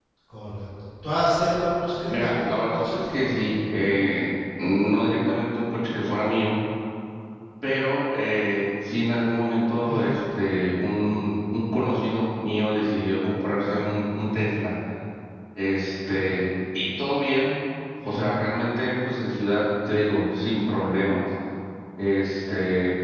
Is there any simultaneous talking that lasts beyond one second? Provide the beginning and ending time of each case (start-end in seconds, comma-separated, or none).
2.1-3.4